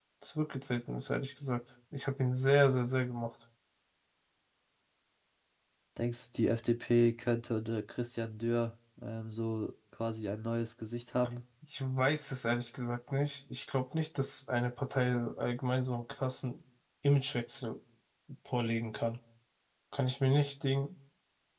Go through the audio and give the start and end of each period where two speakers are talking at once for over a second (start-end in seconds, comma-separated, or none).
none